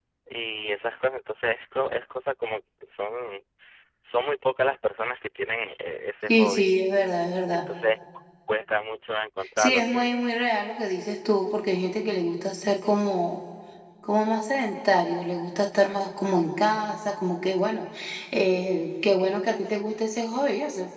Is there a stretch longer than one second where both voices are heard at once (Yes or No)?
No